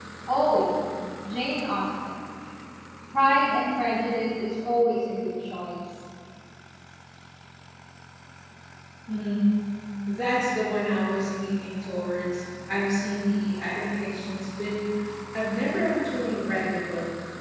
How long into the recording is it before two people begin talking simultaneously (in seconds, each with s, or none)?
none